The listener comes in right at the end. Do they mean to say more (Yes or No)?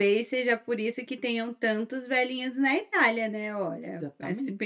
Yes